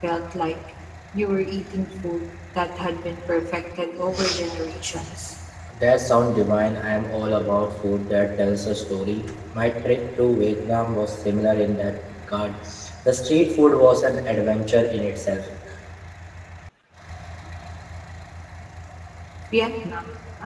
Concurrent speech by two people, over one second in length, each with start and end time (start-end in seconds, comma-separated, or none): none